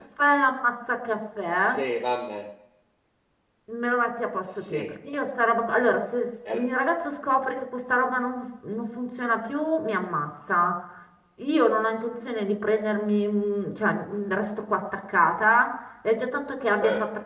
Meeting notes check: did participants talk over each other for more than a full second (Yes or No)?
No